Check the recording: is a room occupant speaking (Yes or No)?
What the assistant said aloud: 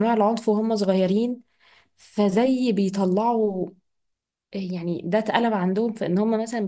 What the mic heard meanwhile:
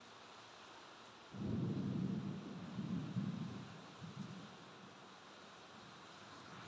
No